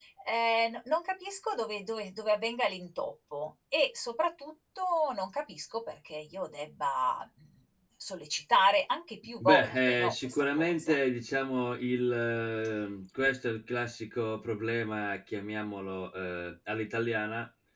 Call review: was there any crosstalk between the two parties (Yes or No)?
Yes